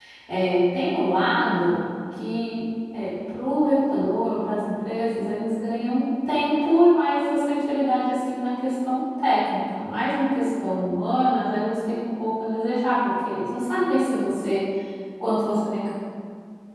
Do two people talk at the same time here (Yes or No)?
No